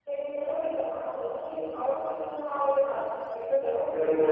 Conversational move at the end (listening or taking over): taking over